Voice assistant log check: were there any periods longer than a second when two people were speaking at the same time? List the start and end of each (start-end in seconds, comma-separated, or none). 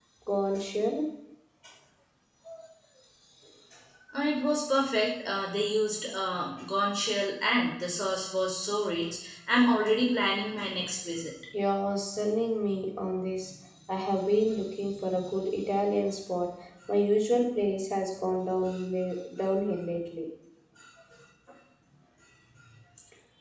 none